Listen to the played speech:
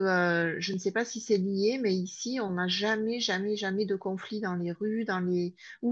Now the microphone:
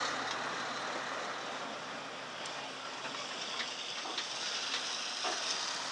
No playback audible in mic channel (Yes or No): Yes